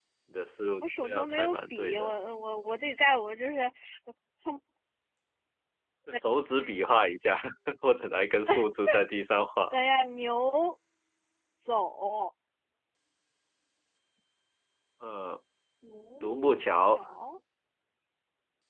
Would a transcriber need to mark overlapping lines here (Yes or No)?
Yes